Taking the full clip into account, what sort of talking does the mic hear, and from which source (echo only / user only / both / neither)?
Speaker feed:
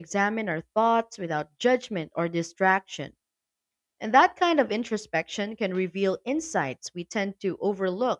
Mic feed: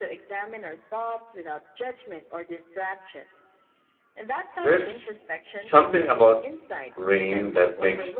both